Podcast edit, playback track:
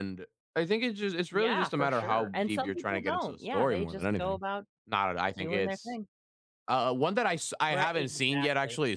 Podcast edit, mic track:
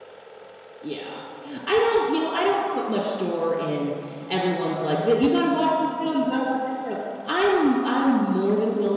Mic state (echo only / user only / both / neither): user only